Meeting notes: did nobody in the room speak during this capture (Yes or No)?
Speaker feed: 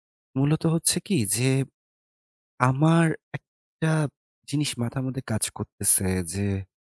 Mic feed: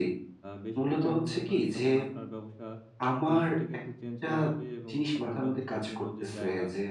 No